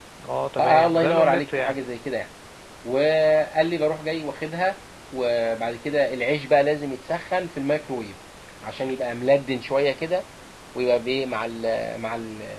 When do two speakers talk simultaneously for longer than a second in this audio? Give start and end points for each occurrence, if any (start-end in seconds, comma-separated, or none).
0.6-1.8